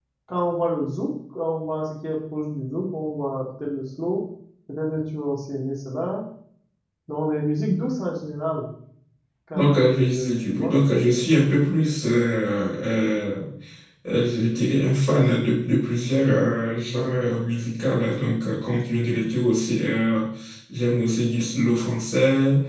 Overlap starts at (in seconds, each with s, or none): 9.5 s